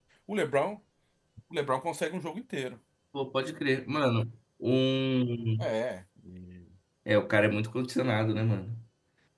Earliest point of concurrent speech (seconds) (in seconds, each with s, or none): none